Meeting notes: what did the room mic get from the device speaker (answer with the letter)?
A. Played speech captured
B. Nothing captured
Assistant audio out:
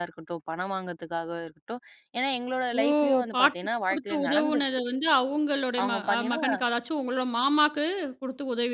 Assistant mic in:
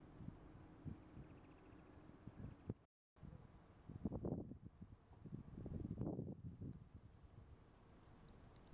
B